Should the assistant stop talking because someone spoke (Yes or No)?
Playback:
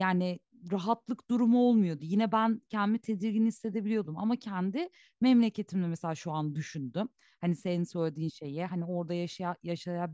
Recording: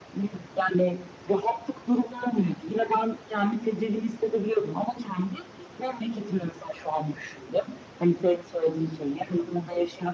No